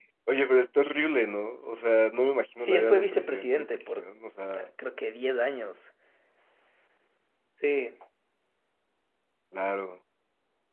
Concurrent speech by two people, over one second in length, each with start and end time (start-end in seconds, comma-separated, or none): 2.6-4.0